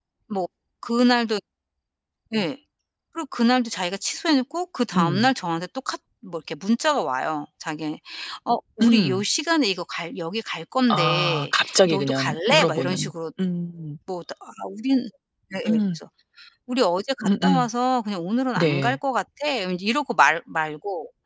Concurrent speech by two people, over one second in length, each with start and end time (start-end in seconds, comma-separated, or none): 10.9-13.1